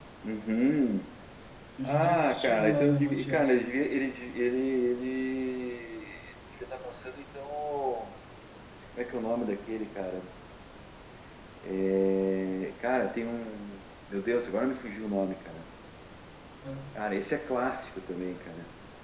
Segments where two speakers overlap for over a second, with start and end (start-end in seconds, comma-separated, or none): 1.9-3.5